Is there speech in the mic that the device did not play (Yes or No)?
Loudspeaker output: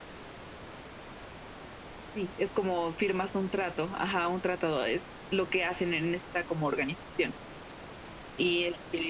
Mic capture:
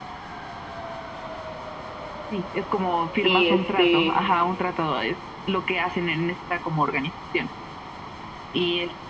Yes